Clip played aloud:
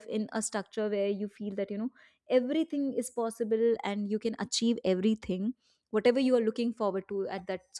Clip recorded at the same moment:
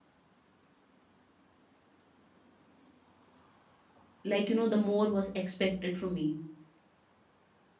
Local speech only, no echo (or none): like you know the more was expected from me